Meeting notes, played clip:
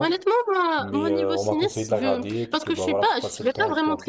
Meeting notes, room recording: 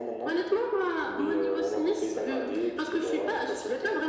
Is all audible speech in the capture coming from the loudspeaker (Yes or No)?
Yes